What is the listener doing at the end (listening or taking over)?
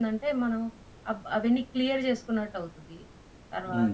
taking over